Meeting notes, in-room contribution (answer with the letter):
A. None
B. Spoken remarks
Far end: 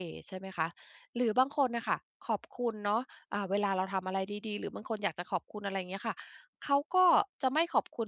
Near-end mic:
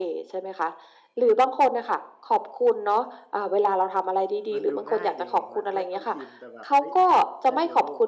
B